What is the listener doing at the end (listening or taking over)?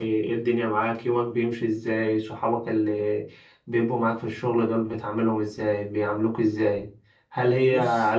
listening